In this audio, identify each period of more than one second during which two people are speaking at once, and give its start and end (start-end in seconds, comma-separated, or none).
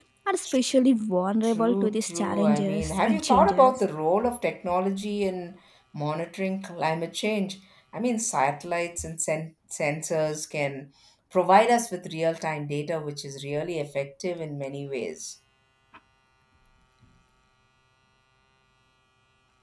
1.4-3.8